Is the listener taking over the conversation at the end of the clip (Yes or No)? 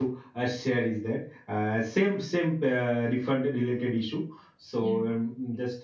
No